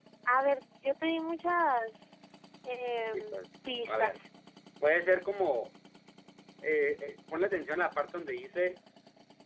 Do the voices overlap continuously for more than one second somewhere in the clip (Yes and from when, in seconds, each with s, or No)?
No